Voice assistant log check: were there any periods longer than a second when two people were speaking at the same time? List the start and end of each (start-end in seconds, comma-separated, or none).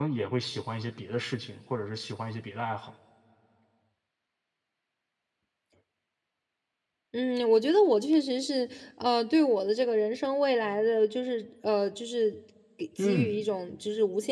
none